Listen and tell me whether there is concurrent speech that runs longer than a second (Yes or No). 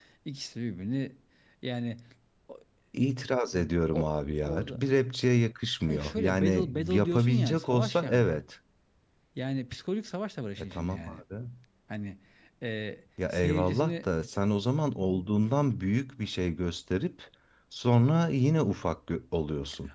Yes